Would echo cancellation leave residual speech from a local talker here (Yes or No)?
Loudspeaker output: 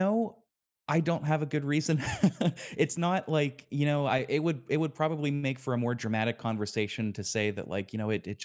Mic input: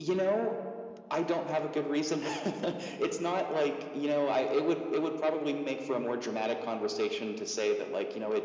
No